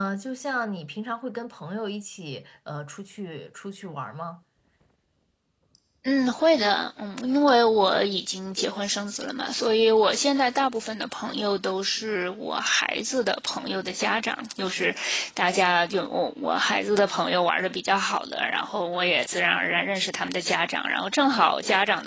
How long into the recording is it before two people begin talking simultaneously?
none

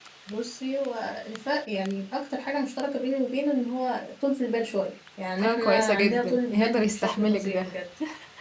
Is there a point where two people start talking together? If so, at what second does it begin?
5.4 s

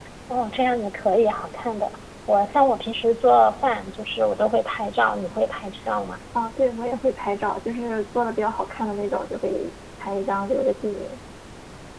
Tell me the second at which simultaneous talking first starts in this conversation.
none

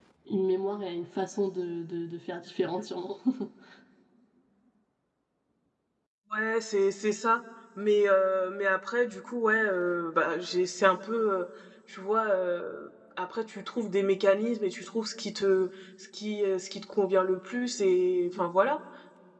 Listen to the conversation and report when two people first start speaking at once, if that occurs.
none

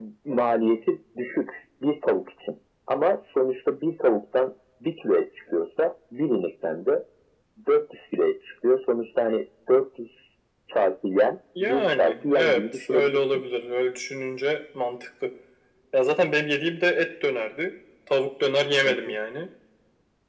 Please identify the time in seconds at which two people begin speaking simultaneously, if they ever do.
11.6 s

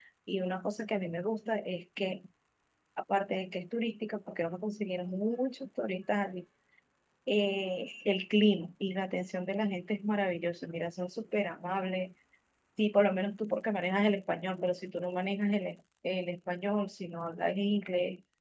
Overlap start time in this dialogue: none

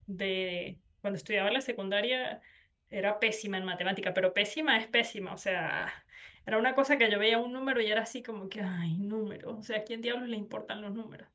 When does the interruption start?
none

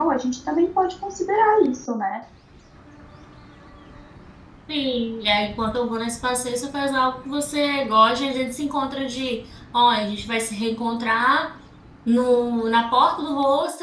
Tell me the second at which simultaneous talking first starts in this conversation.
none

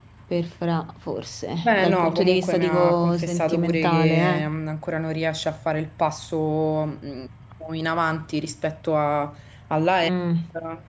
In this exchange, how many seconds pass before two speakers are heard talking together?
1.6 s

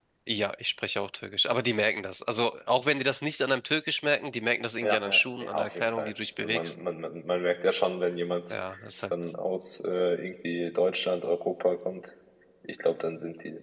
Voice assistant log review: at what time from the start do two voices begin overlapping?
4.8 s

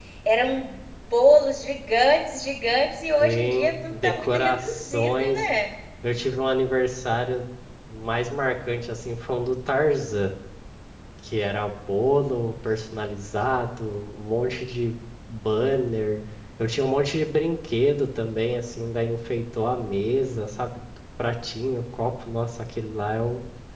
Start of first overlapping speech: 3.2 s

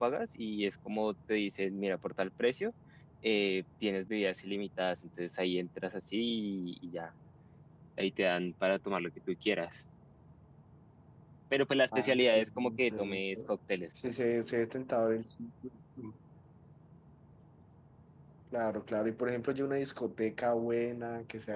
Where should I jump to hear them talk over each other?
11.9 s

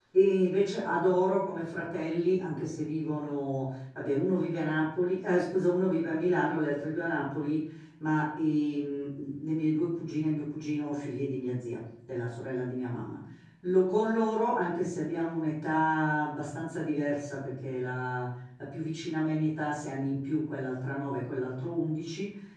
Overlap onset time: none

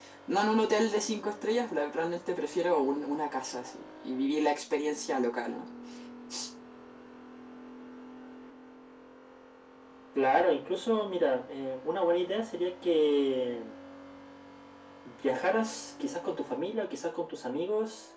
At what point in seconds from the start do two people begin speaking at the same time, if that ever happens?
none

